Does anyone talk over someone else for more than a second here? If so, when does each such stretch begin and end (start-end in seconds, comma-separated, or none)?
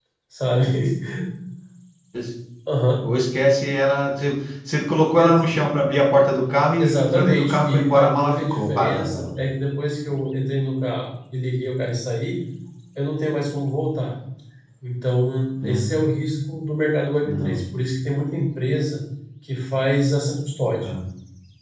6.8-9.2